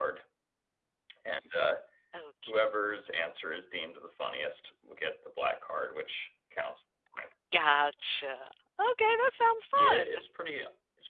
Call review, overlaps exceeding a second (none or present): none